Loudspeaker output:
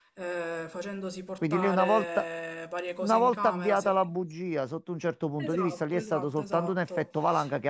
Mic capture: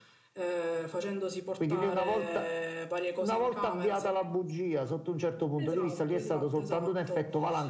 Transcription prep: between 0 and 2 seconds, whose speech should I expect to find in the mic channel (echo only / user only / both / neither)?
echo only